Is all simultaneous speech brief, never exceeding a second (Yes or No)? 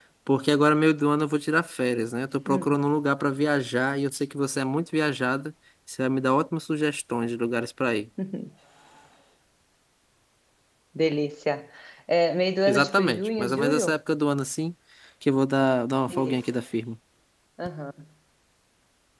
No